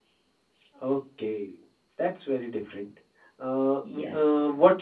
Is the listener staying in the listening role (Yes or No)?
Yes